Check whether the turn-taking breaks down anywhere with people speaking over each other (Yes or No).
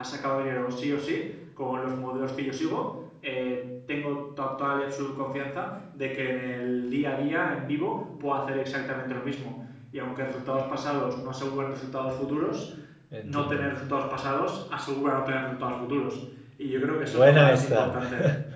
Yes